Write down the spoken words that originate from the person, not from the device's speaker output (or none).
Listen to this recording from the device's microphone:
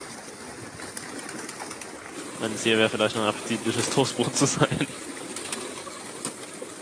mein Ziel wäre vielleicht noch ein appetitliches Toastbrot zu sein.